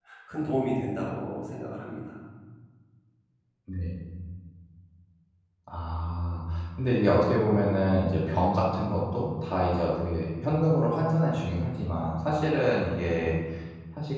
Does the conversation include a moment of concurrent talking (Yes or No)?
No